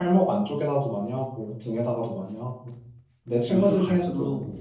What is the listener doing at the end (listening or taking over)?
taking over